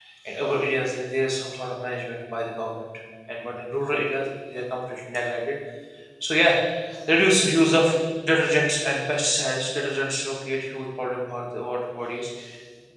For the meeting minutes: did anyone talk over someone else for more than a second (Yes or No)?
No